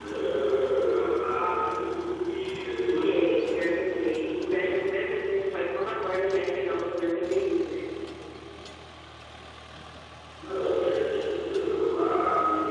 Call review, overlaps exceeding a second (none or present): none